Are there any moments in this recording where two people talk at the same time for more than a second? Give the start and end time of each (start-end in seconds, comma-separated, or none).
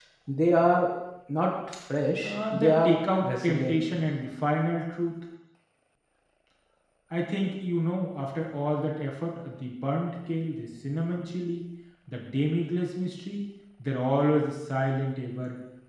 2.2-3.8